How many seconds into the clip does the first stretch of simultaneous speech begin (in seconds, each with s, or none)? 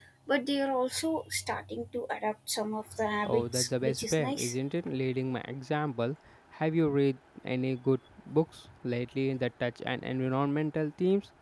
3.2 s